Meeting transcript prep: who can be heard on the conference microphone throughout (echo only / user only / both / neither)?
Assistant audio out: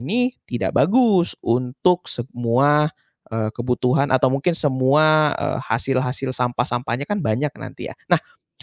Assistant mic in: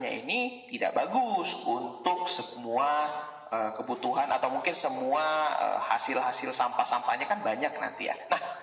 echo only